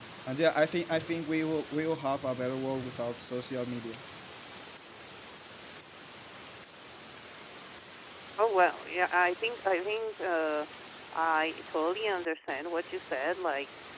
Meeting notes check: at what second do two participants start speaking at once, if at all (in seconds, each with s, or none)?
none